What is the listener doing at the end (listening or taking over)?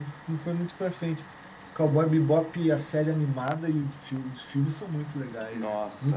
taking over